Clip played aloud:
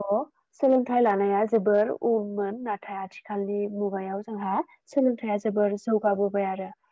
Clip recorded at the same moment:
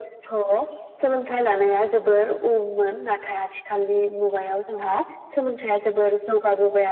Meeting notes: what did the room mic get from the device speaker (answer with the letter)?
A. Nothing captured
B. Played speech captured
B